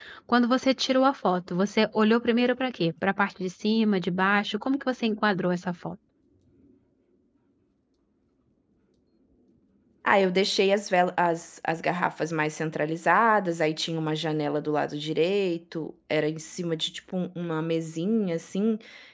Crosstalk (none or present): none